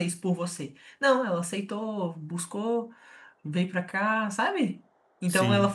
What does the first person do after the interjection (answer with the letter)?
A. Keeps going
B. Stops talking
A